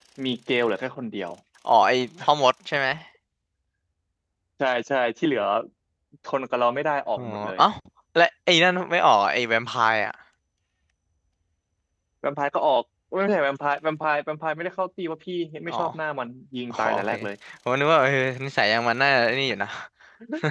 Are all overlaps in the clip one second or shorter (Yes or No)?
Yes